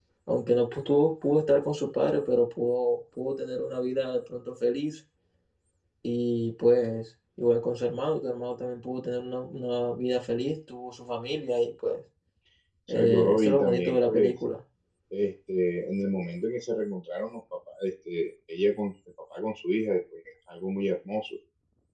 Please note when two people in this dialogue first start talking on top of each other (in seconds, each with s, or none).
12.9 s